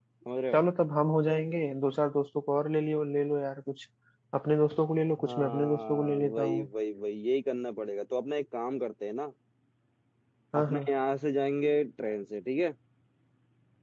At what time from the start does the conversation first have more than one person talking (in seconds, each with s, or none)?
5.2 s